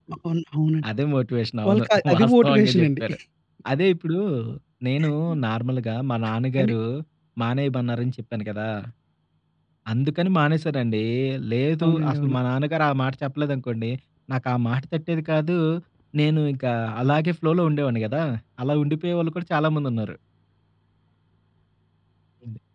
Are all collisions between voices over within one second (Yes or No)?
No